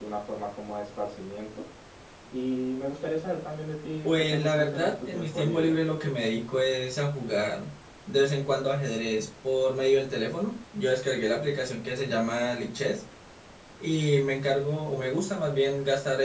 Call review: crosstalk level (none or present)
present